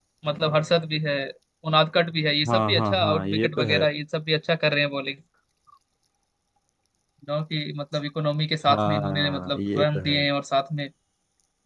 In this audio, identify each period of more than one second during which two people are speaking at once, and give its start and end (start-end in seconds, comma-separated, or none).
2.5-3.8, 8.7-10.2